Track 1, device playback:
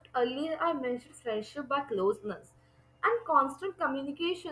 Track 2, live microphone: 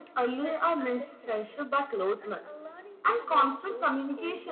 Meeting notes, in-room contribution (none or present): present